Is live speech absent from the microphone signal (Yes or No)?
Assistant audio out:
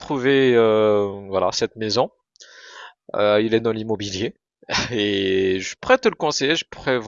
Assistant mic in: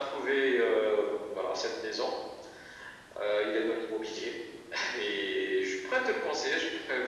Yes